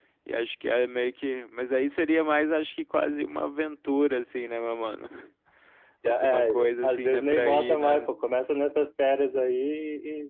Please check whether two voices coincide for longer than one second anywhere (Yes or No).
Yes